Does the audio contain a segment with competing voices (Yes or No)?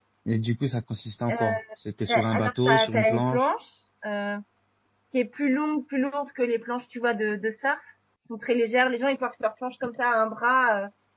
Yes